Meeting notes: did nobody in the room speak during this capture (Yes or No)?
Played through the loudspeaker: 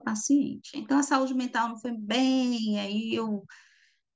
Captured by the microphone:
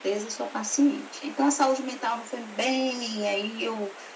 Yes